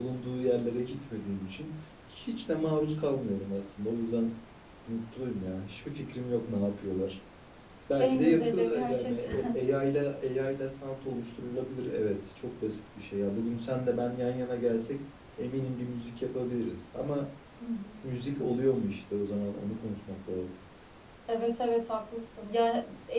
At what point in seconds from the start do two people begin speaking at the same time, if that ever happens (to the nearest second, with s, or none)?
8 s